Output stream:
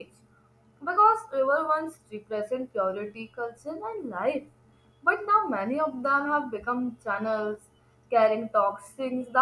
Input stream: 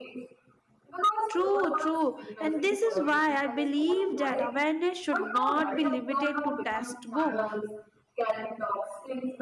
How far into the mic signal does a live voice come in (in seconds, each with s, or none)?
1.3 s